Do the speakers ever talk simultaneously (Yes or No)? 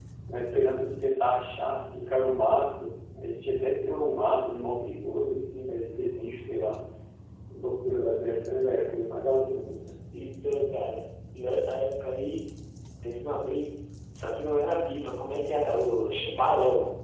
No